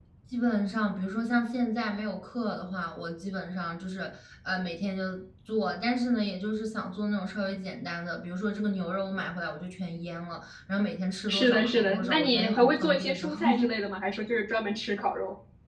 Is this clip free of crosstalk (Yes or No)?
No